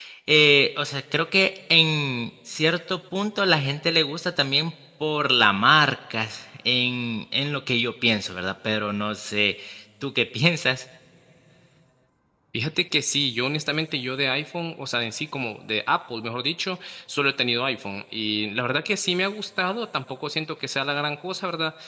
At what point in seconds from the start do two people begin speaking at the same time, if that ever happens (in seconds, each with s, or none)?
none